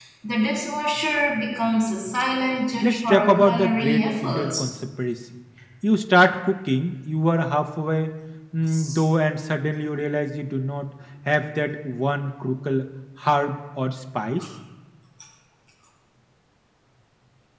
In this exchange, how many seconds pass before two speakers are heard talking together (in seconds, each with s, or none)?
2.8 s